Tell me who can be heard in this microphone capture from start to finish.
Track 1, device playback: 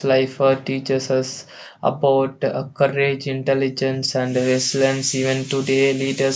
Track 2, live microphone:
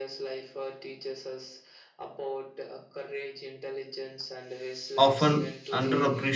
both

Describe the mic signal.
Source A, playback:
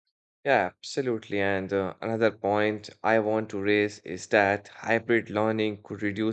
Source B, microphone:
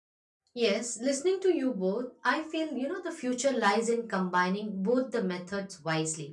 user only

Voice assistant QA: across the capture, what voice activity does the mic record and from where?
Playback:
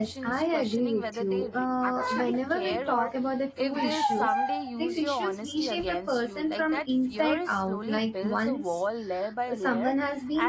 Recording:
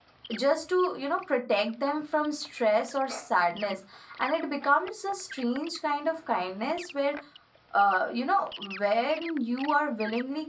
user only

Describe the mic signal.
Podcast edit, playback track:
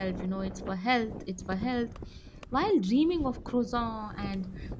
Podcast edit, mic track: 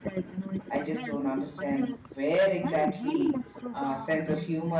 both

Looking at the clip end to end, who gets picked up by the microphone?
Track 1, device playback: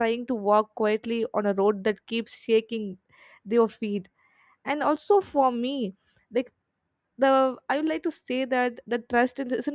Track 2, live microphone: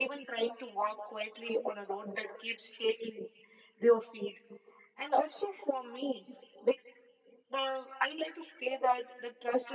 echo only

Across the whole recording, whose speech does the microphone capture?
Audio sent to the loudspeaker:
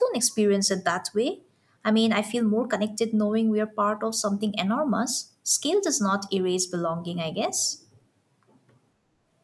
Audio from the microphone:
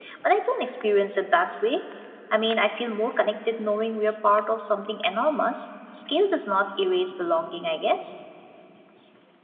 echo only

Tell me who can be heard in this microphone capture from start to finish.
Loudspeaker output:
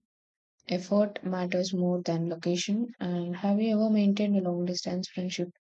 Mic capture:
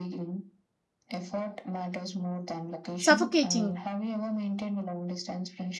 both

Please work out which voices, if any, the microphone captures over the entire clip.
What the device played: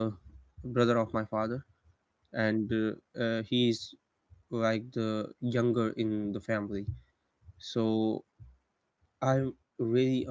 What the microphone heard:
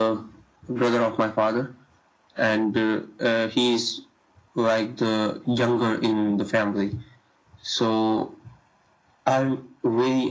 echo only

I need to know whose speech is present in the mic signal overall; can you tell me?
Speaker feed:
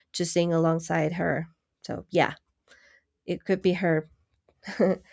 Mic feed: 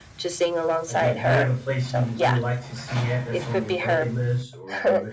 both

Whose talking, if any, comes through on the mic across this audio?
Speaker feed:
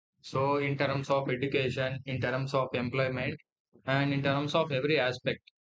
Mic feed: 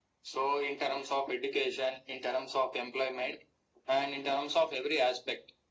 echo only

